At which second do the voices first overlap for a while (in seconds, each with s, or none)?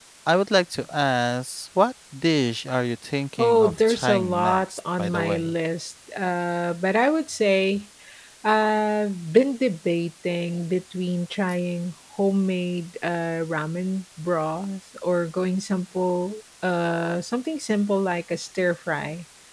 3.4 s